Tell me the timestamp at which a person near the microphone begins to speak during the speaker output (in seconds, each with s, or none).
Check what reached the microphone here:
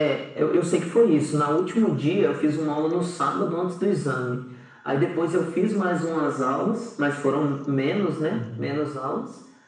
8.3 s